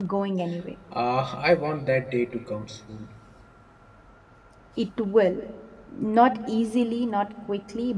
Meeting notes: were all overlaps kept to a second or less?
Yes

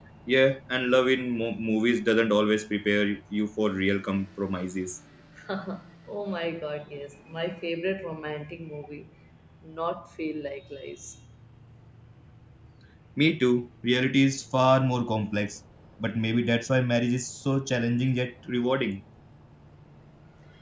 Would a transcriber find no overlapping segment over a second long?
Yes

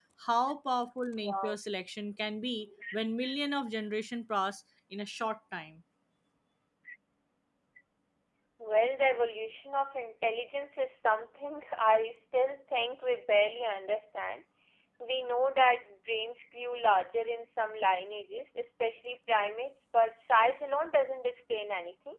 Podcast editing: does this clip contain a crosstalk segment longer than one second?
No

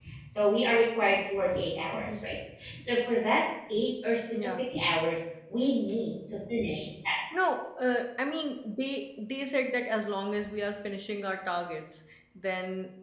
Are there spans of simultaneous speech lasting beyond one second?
No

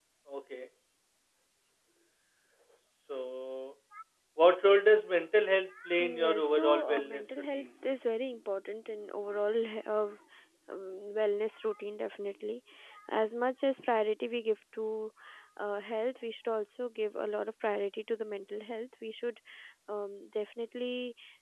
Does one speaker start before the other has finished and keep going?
Yes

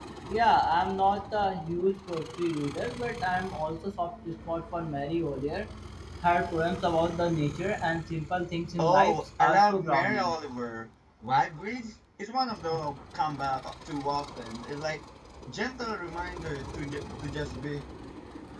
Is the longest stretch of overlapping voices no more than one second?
No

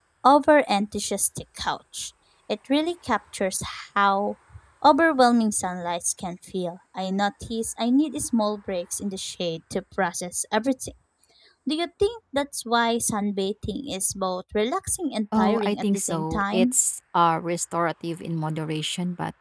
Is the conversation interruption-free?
No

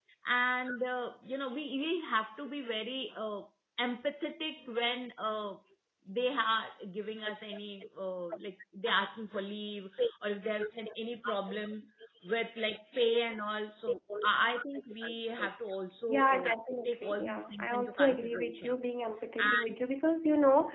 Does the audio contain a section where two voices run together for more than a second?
Yes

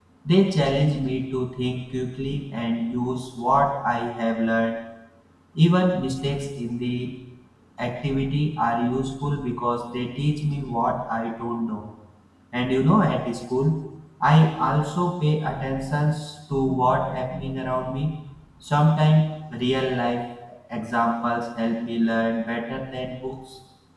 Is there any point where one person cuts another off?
No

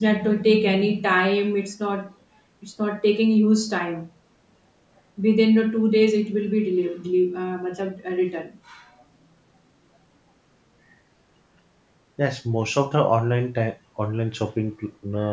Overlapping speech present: No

